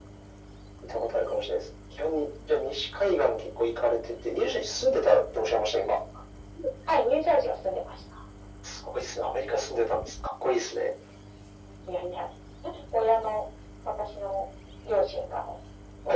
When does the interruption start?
none

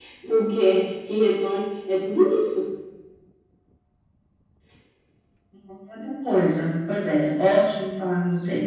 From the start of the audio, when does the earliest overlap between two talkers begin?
none

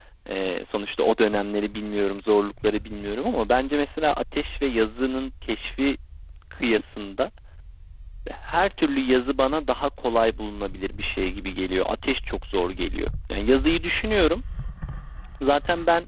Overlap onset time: none

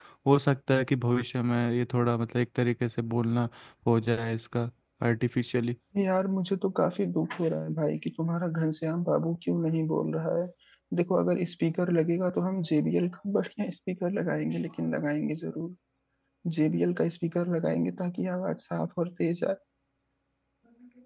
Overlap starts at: none

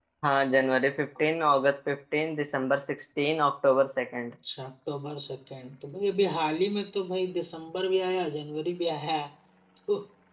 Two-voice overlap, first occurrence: none

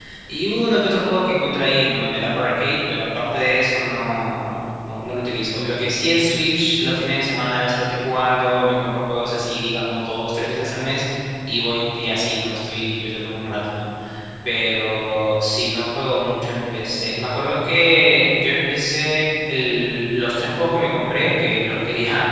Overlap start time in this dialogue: none

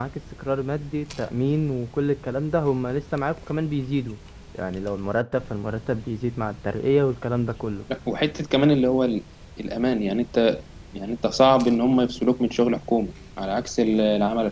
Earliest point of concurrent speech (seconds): none

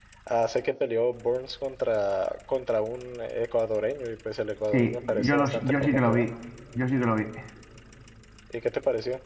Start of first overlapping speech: 4.7 s

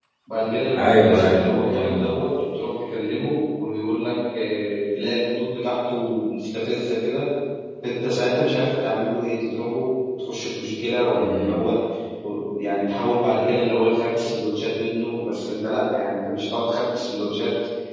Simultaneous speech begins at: 0.8 s

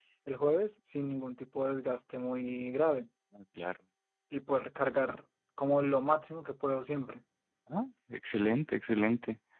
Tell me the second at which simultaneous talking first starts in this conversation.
none

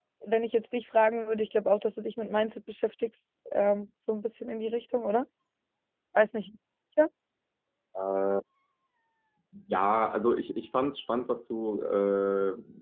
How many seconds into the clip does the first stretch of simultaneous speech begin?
none

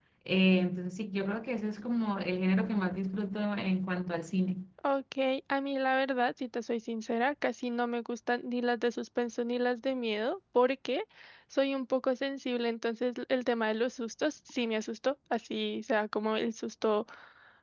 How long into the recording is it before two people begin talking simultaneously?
none

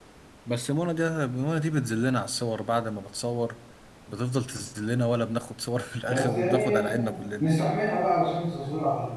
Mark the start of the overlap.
6.1 s

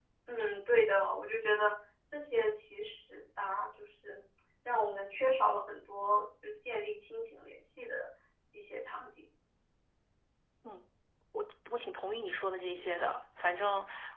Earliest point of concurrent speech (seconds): none

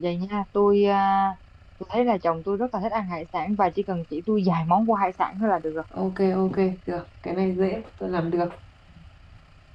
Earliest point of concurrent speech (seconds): none

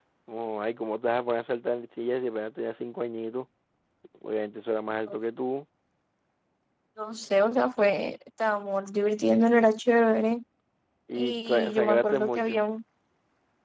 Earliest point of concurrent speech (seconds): 11.1 s

